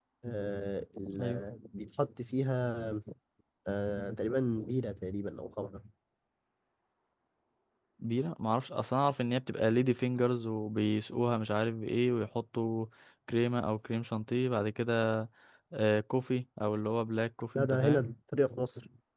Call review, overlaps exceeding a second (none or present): none